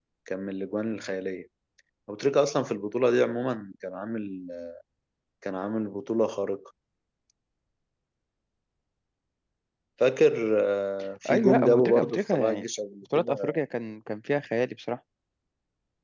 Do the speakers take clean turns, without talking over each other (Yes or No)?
No